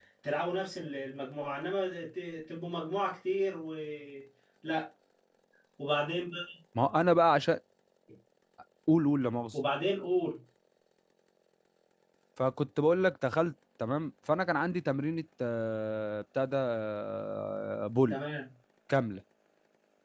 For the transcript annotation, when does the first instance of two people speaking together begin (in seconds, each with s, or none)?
none